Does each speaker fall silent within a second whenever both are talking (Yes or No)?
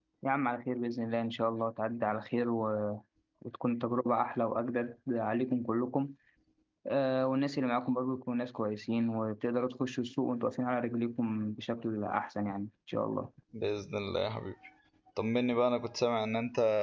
Yes